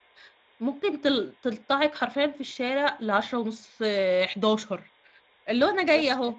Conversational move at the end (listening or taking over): listening